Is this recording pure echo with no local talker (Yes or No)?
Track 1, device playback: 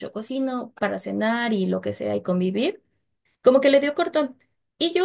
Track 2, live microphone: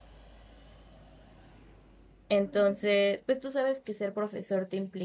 No